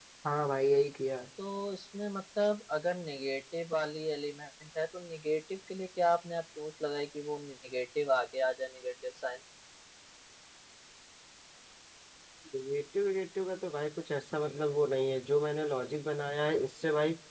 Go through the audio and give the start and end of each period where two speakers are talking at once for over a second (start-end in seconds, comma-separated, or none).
none